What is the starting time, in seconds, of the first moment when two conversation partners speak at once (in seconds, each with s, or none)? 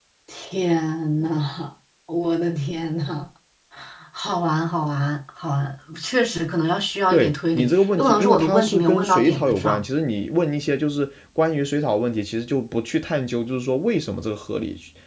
7.1 s